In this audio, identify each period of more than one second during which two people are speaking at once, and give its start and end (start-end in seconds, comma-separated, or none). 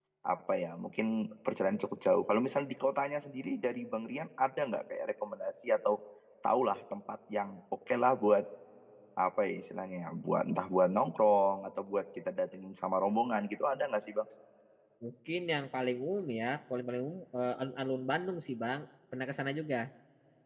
none